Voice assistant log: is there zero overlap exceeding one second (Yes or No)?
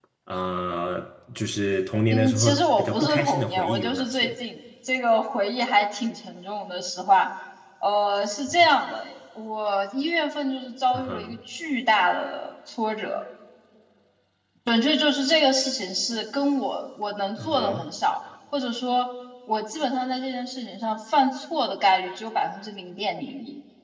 No